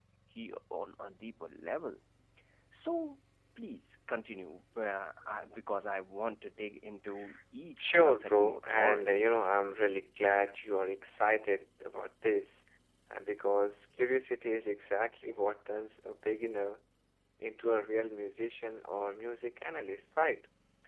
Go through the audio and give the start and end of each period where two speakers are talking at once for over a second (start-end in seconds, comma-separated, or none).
7.8-9.2